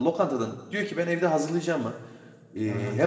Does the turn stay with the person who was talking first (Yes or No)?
Yes